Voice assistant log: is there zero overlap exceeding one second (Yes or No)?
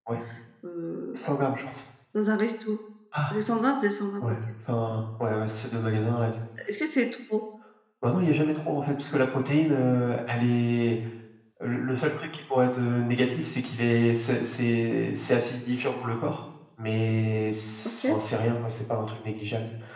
Yes